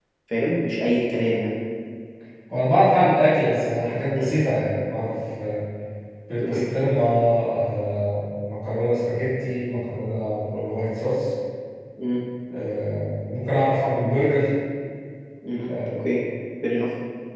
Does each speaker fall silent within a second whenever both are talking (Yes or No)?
Yes